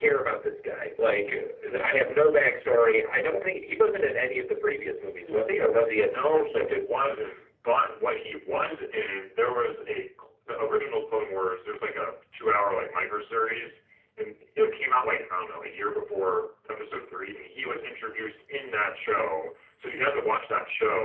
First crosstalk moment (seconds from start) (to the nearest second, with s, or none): 5 s